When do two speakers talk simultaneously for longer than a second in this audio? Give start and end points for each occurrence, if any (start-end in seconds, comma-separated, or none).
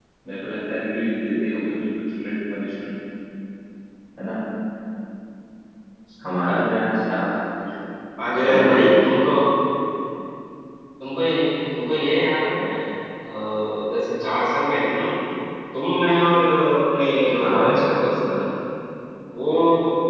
none